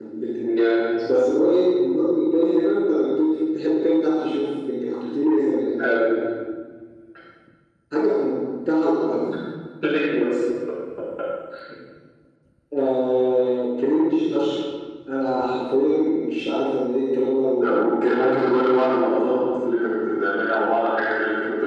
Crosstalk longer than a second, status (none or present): none